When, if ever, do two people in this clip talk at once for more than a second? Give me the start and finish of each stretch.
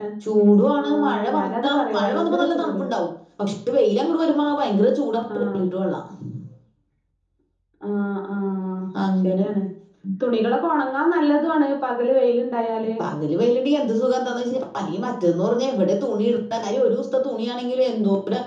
0.8-2.8

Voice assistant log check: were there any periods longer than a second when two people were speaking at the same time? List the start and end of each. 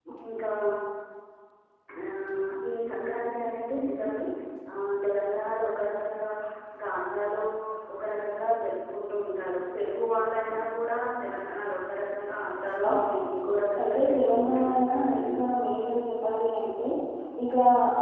13.8-15.3

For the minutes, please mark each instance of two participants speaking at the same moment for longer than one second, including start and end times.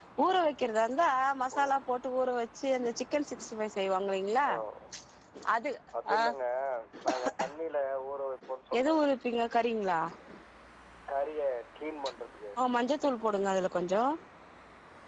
none

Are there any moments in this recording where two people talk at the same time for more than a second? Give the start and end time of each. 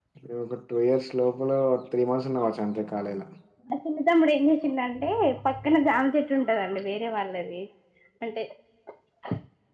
none

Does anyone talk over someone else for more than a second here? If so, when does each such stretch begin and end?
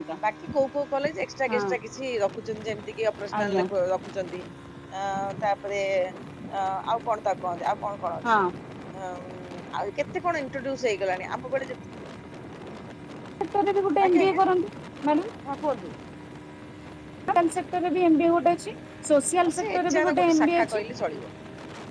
19.5-20.8

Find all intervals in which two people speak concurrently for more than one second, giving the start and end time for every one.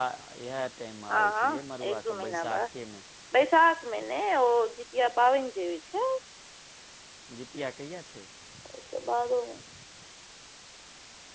1.1-2.6

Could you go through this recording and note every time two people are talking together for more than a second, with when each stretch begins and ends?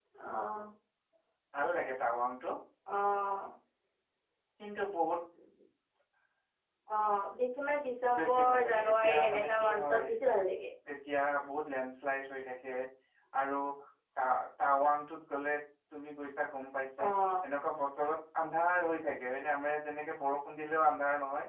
8.1-10.0

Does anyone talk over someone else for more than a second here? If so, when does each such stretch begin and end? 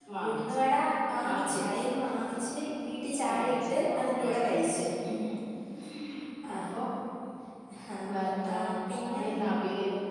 3.2-4.7

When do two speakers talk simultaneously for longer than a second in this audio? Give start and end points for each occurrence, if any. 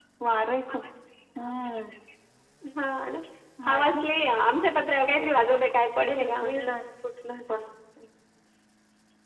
5.1-6.6

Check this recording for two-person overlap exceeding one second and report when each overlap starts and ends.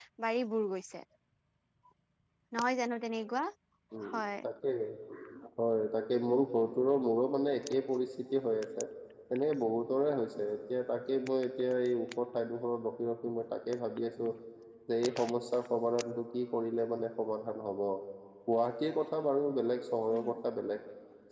none

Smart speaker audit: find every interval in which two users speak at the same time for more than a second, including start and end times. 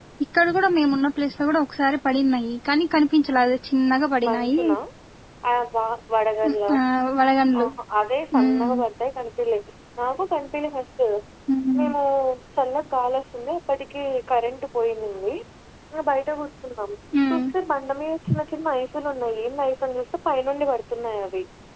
none

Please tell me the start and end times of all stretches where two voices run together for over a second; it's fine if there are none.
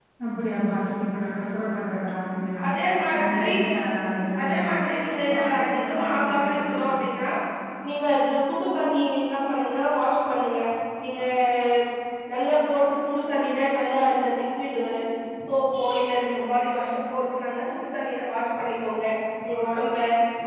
5.3-6.9

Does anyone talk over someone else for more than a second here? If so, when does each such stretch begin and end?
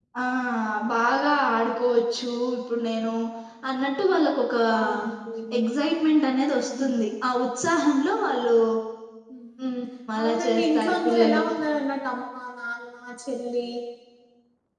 10.2-11.4

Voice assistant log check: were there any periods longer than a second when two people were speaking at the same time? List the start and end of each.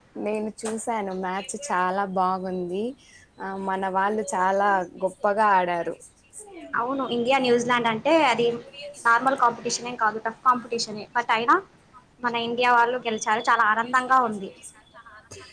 none

